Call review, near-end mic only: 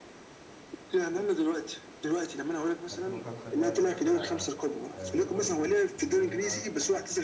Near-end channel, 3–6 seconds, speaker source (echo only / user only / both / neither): both